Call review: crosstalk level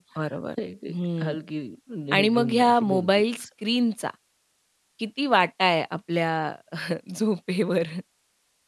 present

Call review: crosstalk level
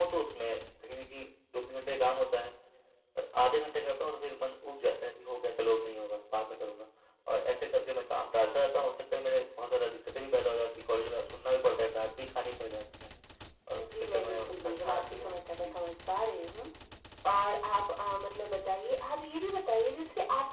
present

